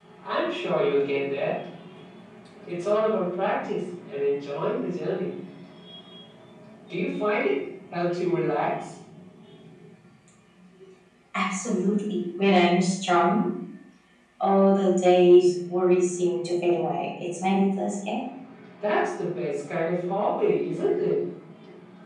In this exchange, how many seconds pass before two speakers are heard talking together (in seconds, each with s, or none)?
none